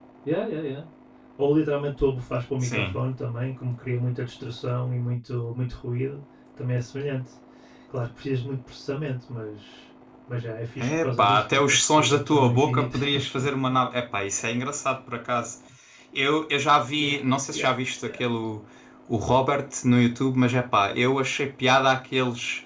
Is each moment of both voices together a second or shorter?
No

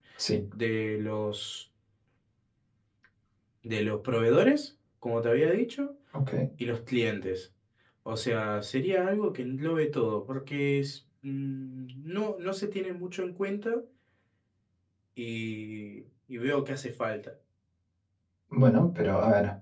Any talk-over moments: No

